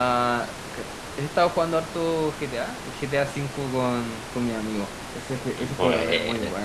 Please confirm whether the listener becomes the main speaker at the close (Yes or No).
No